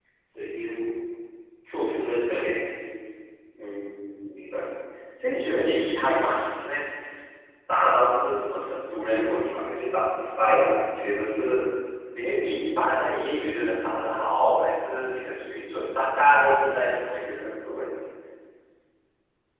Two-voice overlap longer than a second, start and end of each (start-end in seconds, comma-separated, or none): none